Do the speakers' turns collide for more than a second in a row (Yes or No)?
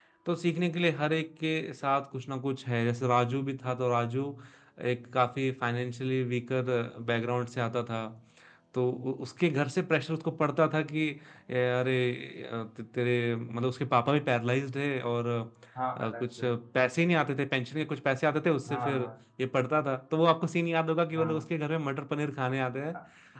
No